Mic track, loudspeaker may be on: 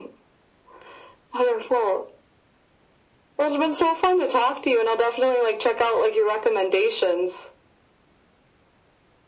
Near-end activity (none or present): none